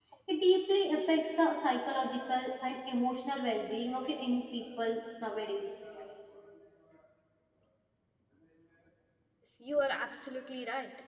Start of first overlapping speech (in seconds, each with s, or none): none